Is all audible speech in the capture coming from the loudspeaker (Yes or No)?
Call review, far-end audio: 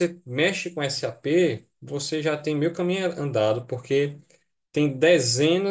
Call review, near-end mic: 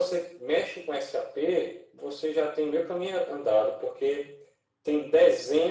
Yes